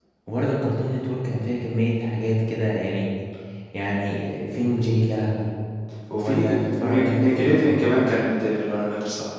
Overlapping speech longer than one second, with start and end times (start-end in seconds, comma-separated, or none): 6.2-7.8